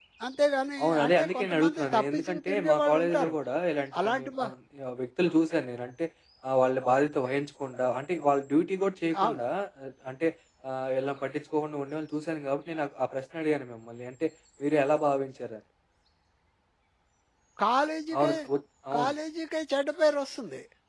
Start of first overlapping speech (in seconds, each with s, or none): 0.8 s